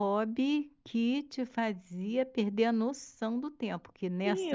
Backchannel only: No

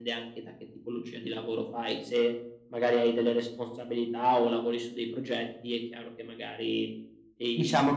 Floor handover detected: Yes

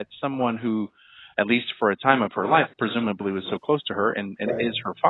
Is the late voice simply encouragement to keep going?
Yes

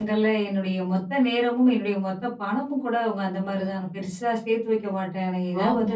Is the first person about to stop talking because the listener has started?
No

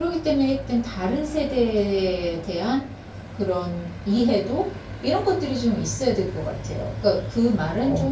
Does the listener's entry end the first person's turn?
No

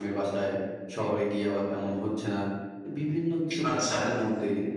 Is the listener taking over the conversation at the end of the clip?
No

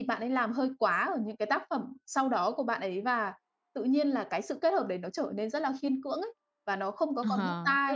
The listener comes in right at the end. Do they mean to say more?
Yes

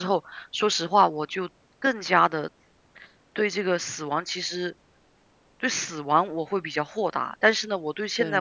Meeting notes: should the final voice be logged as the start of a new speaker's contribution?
No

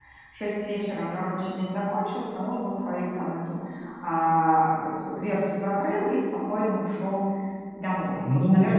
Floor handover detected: Yes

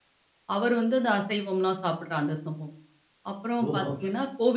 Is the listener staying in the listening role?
Yes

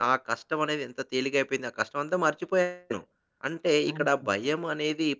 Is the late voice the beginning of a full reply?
No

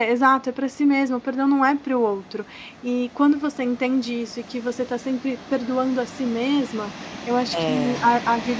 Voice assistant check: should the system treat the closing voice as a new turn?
No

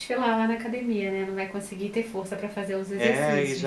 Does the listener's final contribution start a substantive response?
Yes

